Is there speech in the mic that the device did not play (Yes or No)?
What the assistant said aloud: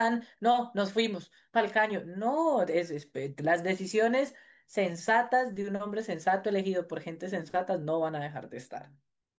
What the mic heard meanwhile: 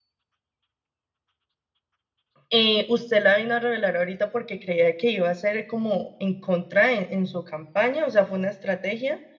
Yes